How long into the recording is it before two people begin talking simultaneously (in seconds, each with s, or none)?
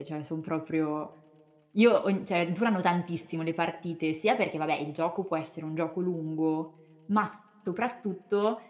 none